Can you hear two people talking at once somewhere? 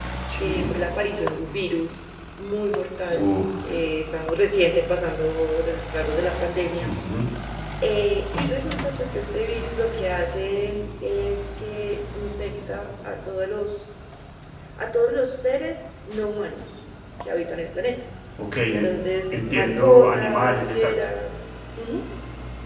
Yes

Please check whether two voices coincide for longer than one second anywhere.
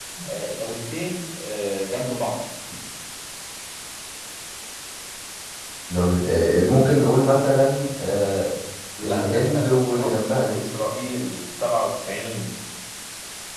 Yes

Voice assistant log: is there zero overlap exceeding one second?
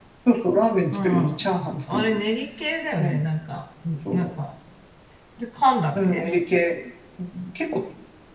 Yes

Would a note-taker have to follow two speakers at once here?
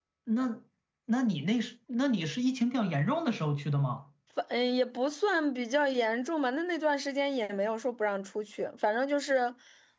No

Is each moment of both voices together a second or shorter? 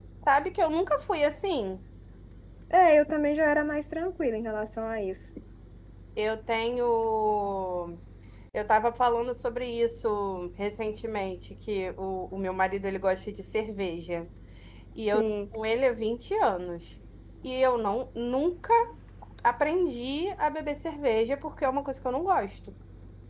Yes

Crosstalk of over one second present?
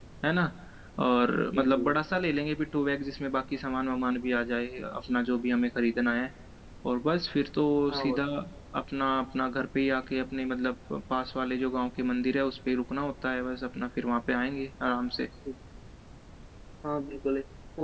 No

